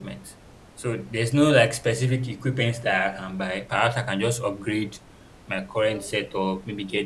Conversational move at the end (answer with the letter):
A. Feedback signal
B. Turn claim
A